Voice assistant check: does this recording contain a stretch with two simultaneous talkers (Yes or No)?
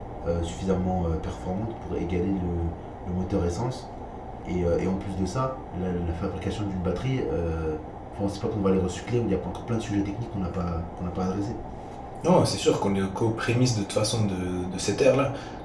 No